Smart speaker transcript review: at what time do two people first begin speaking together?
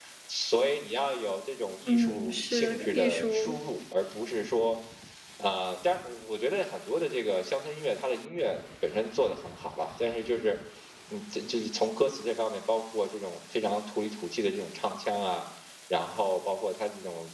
1.9 s

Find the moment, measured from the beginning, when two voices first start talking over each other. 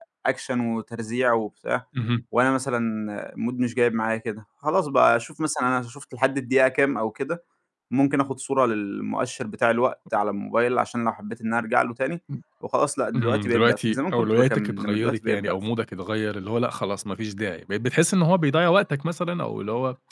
13.2 s

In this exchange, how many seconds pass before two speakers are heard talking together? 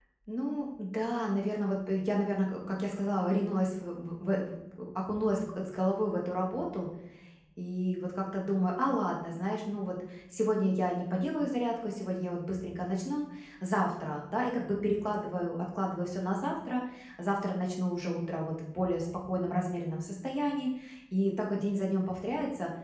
none

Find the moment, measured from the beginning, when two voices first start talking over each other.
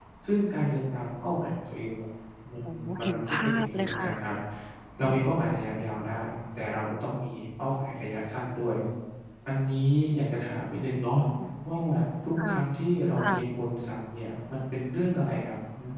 2.7 s

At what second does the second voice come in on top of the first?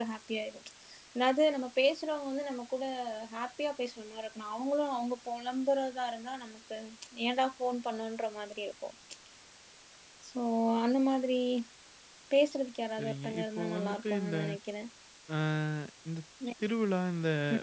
13.0 s

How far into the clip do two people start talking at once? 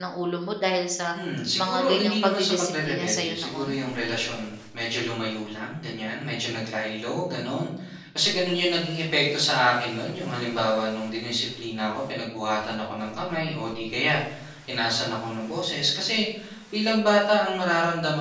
1.6 s

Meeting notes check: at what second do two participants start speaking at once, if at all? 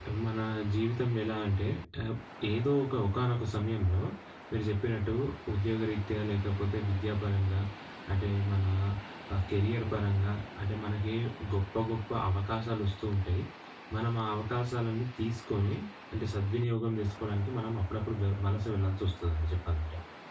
none

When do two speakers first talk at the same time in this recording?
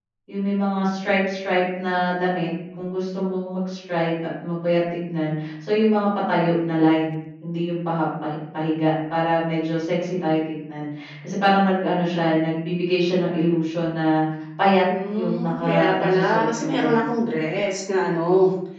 15.2 s

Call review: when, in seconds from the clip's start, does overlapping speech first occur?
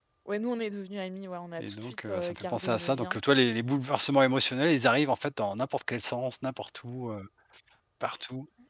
1.6 s

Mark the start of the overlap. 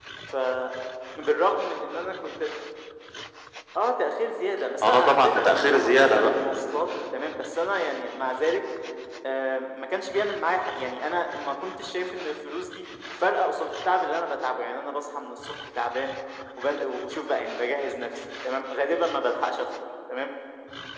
4.8 s

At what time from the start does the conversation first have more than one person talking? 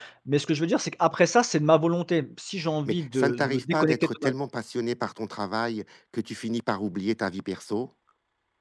2.9 s

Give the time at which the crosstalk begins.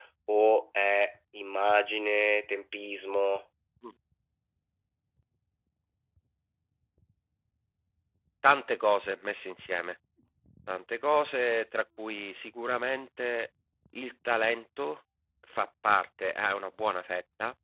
none

